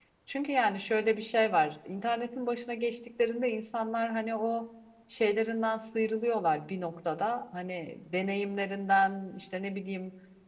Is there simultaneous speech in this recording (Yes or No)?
No